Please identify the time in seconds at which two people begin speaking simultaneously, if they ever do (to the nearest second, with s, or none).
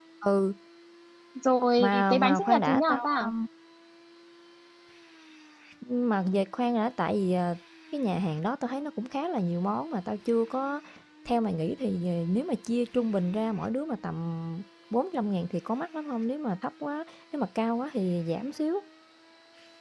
2 s